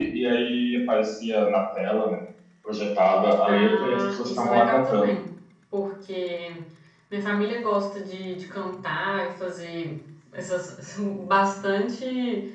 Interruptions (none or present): present